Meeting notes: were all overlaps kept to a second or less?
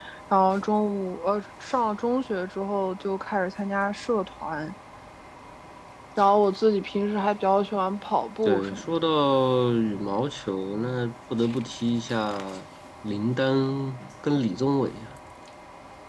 Yes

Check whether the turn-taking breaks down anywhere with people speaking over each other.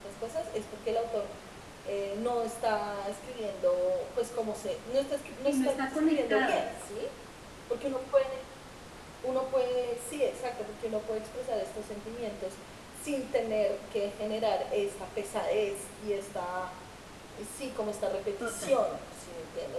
Yes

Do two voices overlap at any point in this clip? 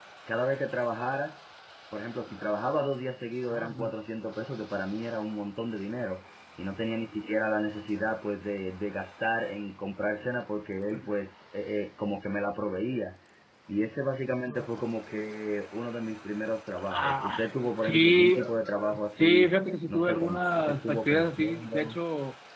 Yes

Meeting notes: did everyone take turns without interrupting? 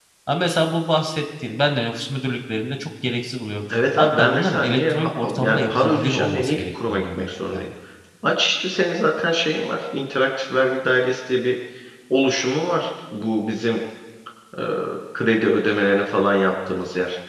No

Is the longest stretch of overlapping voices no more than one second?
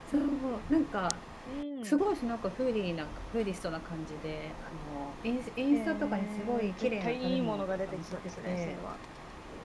No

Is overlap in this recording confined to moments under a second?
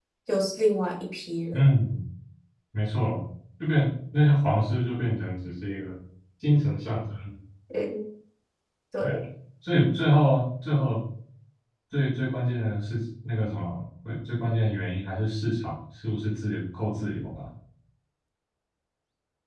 Yes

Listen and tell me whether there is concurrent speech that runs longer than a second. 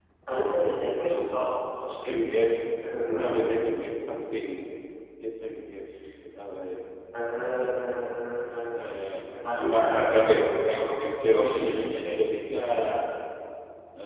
Yes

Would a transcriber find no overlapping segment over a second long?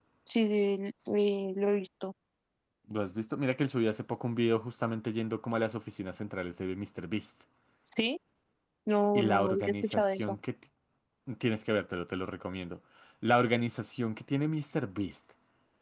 No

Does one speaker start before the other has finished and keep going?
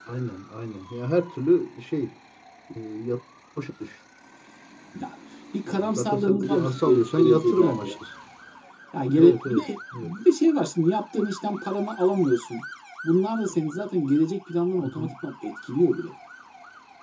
Yes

